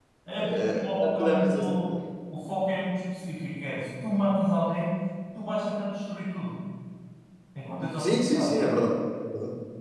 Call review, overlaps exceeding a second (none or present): present